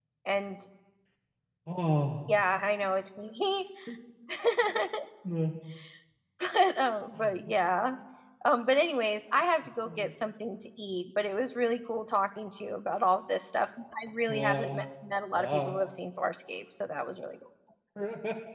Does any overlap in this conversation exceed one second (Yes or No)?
No